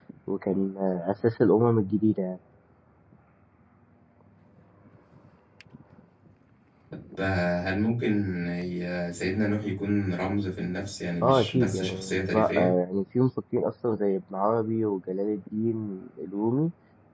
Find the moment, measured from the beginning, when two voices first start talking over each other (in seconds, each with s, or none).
11.2 s